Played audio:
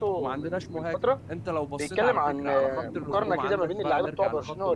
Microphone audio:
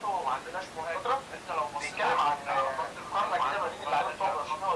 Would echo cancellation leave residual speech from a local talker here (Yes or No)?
No